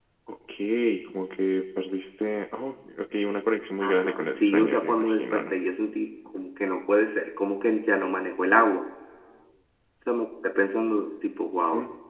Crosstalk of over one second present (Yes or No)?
Yes